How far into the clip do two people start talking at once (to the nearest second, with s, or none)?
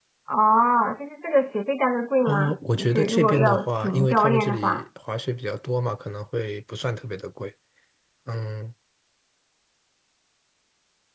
2 s